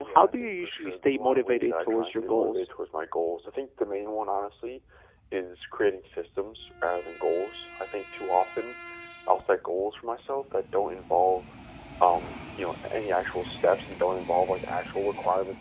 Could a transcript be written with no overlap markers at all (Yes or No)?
No